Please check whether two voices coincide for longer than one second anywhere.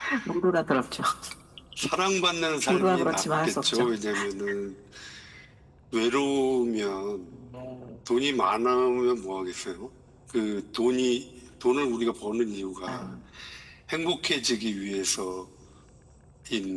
Yes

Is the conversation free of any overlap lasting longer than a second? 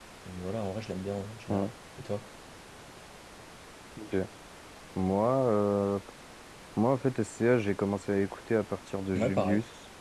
Yes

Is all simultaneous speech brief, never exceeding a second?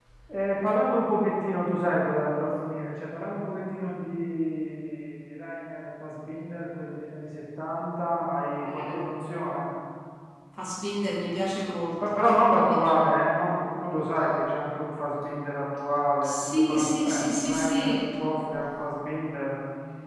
No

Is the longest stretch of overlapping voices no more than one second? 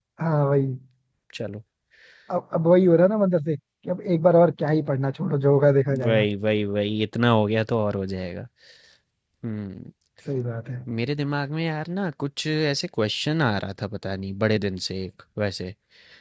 Yes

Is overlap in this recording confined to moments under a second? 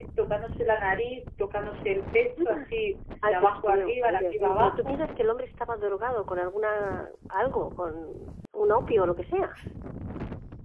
No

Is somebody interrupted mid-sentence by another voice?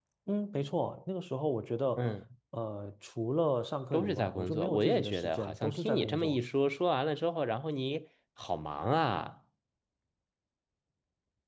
Yes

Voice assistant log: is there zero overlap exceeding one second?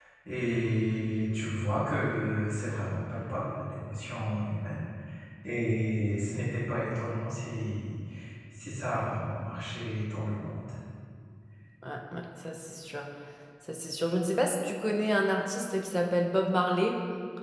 Yes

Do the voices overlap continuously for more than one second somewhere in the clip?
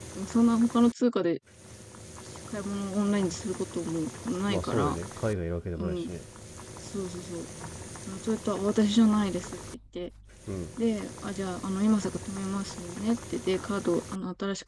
No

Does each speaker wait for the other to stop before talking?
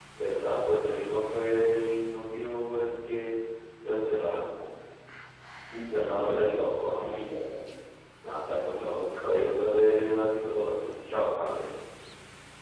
No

